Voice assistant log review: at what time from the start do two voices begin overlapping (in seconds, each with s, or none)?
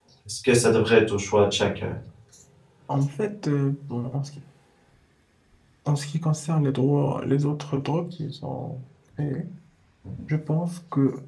none